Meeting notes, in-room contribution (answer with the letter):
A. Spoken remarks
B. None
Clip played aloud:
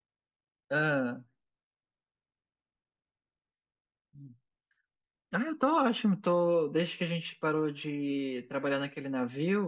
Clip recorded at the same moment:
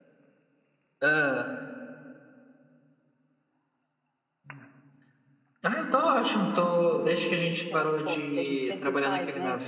A